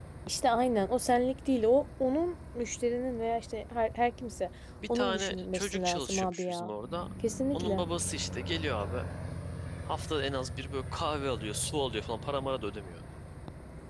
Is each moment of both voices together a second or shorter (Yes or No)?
No